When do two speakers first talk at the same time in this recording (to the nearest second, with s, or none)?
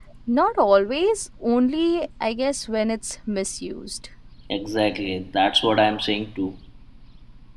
none